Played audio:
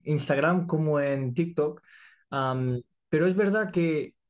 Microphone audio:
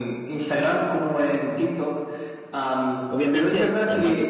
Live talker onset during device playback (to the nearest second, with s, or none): 3 s